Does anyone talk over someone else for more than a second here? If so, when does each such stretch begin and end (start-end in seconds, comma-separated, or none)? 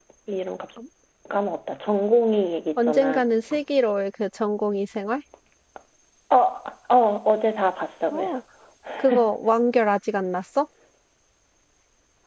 none